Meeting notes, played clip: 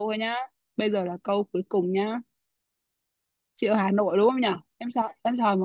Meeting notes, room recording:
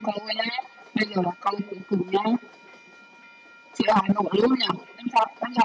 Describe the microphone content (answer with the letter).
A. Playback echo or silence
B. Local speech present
A